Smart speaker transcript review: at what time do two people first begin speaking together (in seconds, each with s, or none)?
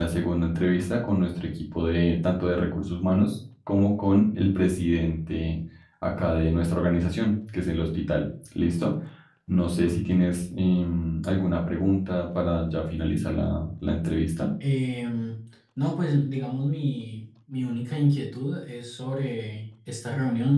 none